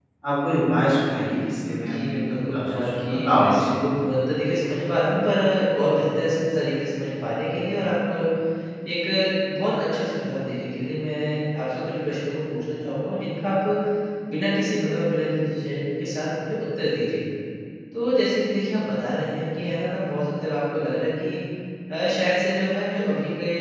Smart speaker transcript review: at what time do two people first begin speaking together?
1.7 s

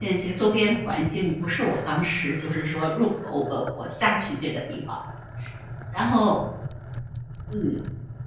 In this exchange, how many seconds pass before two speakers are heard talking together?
none

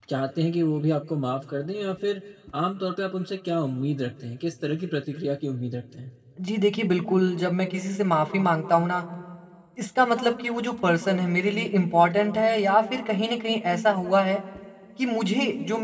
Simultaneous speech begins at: none

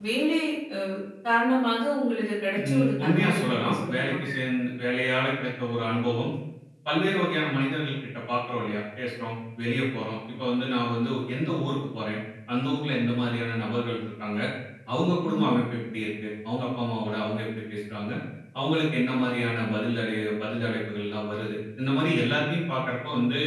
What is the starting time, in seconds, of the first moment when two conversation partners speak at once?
2.6 s

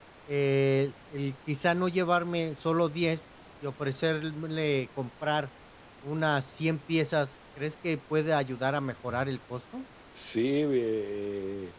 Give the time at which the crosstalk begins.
none

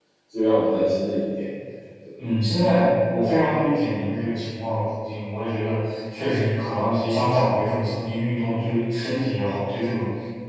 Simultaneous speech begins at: none

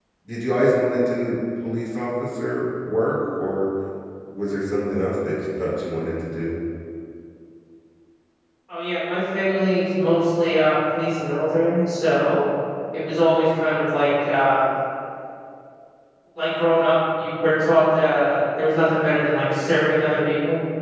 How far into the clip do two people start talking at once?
none

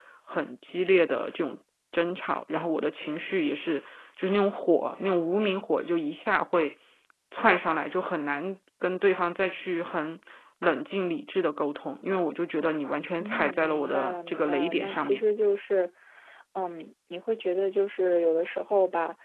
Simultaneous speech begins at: 13.2 s

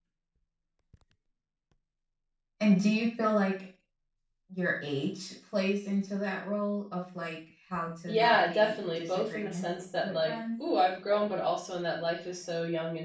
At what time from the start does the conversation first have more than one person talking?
8.1 s

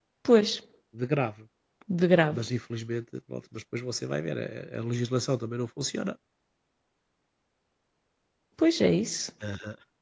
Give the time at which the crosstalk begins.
none

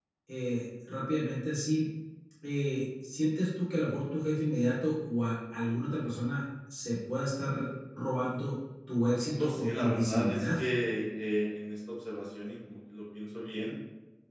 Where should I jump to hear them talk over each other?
9.2 s

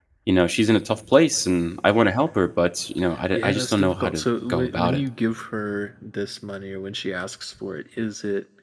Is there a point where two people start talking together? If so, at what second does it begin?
3.3 s

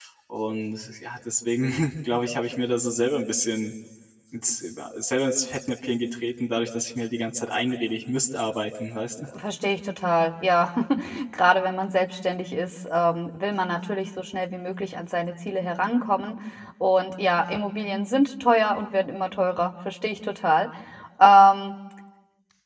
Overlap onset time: none

